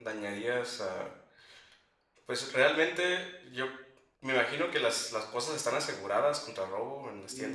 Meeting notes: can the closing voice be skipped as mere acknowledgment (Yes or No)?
No